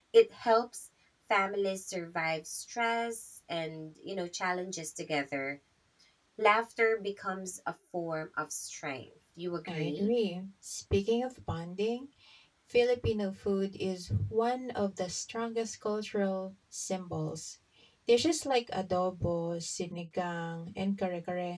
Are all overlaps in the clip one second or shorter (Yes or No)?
Yes